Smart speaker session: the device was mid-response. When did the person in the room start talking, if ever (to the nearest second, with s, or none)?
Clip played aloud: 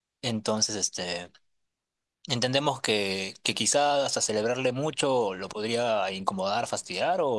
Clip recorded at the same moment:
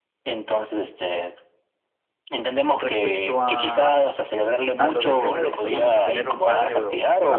3 s